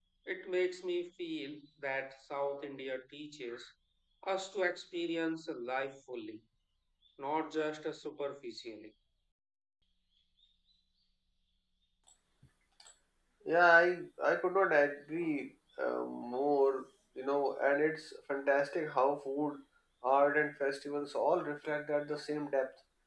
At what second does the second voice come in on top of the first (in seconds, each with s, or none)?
none